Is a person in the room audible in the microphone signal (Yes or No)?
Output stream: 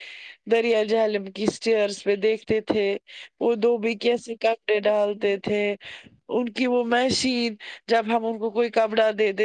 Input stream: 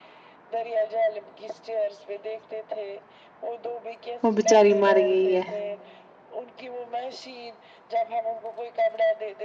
Yes